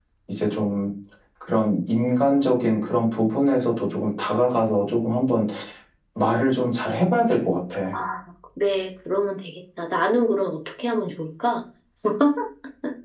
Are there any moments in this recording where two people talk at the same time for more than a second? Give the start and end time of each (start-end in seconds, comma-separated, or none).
none